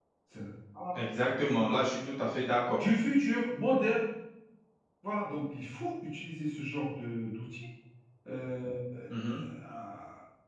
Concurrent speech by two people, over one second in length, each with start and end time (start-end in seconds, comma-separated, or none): none